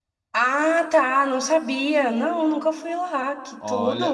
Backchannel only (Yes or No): No